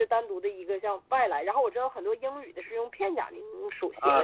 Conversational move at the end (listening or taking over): taking over